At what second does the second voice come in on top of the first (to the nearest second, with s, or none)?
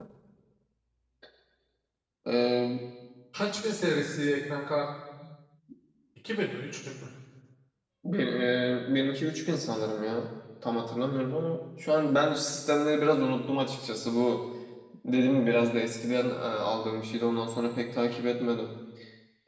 none